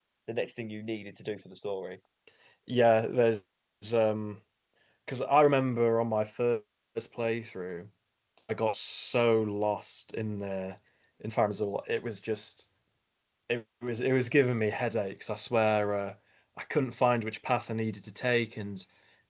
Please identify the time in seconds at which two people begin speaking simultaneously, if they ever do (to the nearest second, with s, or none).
none